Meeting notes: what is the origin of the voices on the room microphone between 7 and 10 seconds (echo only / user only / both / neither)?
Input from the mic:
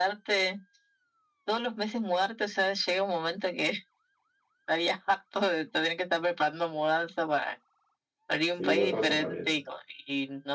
both